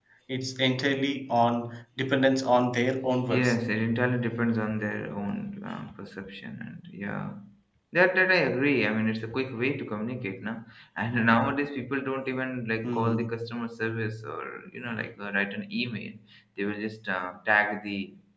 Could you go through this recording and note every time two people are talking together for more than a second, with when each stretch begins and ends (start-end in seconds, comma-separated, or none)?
none